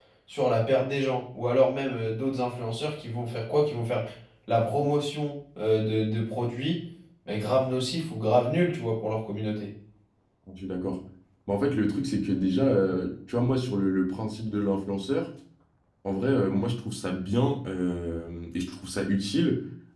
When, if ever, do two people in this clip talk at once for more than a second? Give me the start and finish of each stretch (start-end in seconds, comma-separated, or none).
none